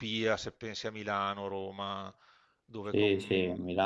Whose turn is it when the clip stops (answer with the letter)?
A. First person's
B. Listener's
B